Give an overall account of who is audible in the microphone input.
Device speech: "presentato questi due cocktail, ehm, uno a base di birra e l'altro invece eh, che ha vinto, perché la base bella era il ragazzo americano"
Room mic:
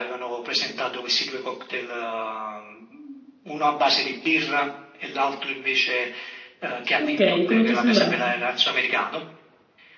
both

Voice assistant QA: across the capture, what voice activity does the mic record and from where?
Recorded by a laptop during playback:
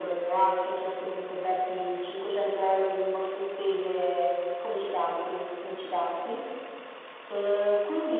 echo only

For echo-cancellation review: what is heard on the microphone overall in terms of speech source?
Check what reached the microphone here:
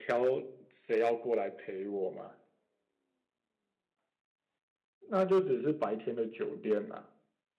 user only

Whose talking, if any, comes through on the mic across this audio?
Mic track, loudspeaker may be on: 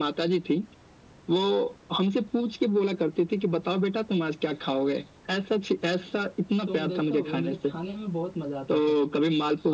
both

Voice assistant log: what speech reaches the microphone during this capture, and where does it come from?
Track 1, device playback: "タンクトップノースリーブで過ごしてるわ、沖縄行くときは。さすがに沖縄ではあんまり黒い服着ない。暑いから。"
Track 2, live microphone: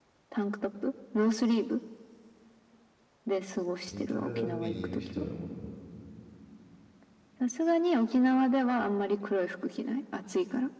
both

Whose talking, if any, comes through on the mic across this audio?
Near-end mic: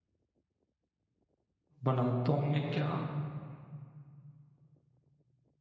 user only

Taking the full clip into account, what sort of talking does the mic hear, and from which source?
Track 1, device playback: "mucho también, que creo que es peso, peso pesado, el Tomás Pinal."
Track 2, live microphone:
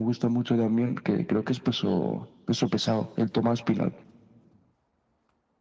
echo only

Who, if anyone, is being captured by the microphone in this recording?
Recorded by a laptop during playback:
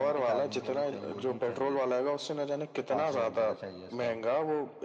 both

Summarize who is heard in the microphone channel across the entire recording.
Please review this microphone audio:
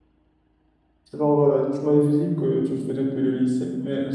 user only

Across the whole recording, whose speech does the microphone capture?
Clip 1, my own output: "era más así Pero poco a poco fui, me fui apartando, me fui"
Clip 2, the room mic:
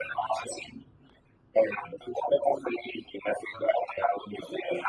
echo only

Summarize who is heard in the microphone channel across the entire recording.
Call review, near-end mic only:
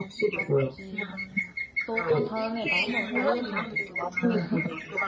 both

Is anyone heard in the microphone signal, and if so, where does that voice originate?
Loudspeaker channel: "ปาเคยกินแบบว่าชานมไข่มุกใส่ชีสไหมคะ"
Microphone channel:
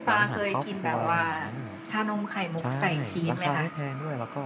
both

